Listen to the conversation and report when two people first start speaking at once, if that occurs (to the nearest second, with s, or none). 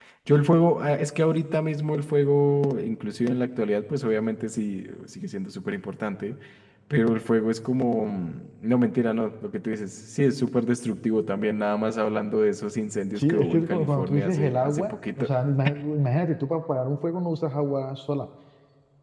13 s